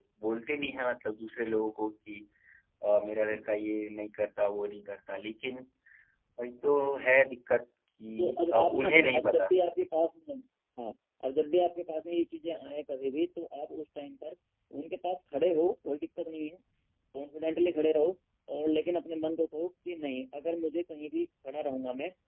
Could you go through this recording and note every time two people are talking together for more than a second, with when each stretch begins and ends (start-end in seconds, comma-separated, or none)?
8.2-9.5